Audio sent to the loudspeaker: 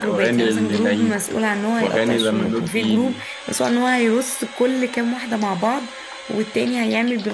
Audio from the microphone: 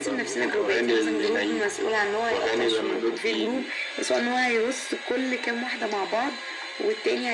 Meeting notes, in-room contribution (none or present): none